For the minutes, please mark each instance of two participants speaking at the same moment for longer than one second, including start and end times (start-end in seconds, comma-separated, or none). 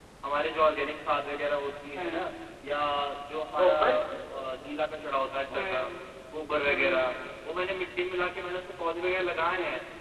none